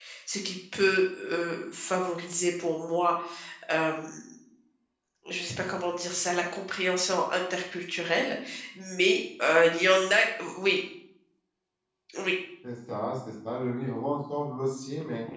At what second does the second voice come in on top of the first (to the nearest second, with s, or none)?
none